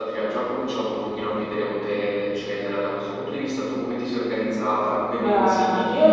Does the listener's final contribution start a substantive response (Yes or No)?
Yes